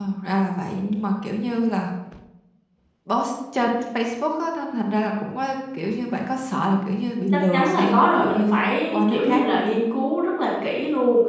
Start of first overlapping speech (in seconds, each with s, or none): 7.5 s